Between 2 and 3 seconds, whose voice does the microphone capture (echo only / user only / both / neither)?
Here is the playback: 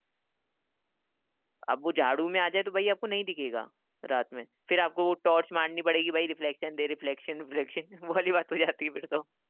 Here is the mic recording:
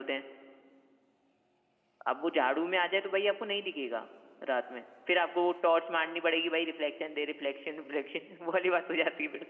echo only